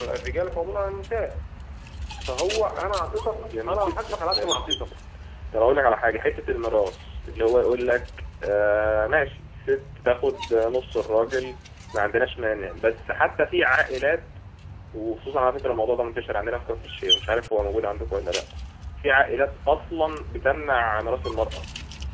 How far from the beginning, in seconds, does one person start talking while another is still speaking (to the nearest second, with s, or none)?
3 s